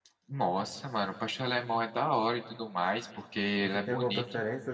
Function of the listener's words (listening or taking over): taking over